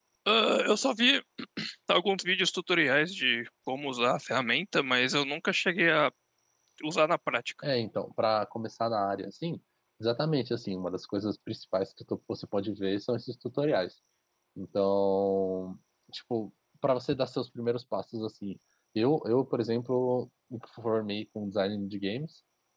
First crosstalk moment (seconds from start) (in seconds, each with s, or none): none